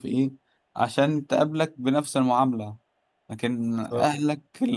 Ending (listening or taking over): listening